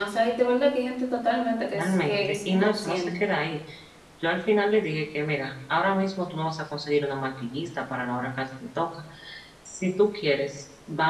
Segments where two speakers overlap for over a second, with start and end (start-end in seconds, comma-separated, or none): 1.7-3.2